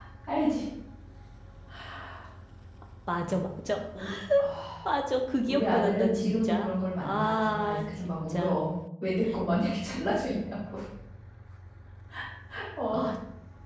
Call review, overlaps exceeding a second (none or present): present